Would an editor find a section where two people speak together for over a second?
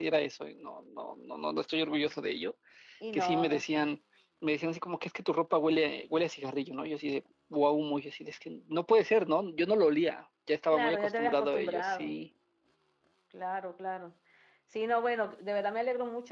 Yes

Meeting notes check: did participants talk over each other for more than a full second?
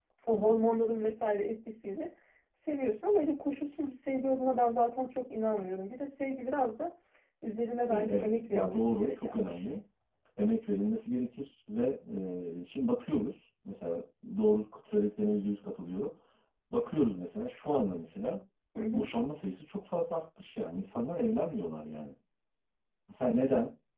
Yes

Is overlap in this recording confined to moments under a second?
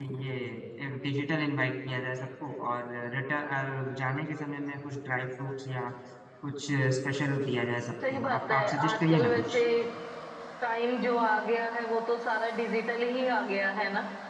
No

